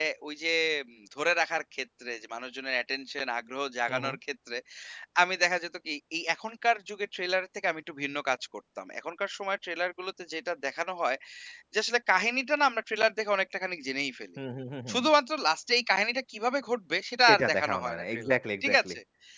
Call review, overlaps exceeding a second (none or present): present